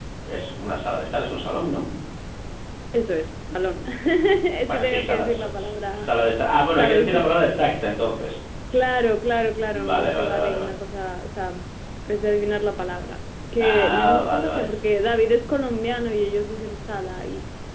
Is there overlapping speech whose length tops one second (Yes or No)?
Yes